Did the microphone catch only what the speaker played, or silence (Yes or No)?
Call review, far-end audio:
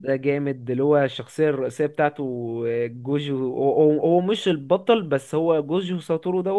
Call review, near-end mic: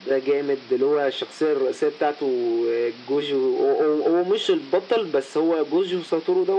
Yes